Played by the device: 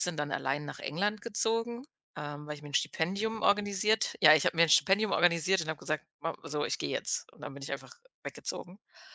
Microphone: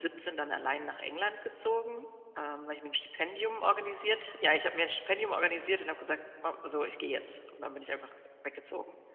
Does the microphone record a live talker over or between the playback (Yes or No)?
No